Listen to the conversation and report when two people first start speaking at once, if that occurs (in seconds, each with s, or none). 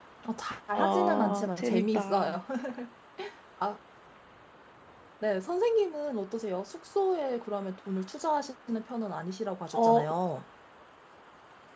0.7 s